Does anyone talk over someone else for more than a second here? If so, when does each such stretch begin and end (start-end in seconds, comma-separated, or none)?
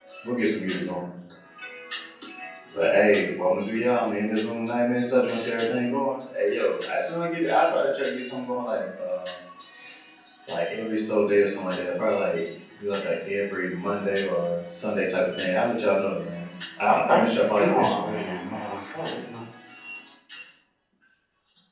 16.9-18.3